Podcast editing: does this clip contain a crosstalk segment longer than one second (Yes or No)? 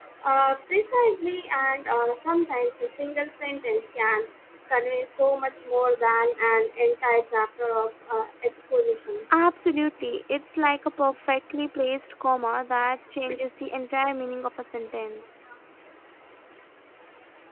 No